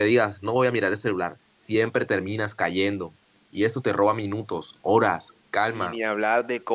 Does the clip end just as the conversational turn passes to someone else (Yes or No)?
Yes